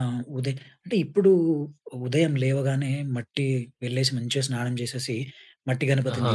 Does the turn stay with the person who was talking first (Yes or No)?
Yes